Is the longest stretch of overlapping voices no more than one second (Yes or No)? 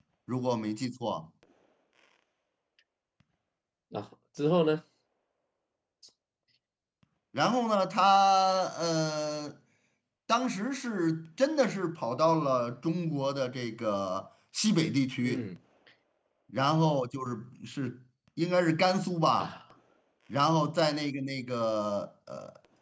Yes